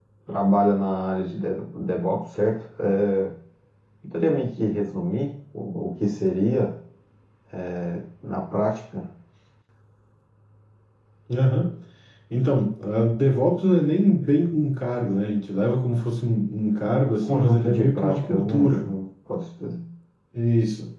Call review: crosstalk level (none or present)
present